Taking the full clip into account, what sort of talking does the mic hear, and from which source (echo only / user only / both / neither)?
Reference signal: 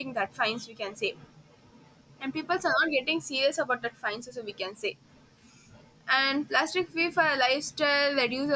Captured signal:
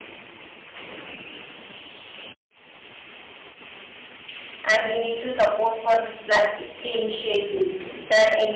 user only